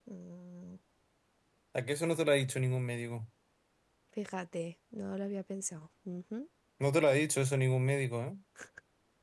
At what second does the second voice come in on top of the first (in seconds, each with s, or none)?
none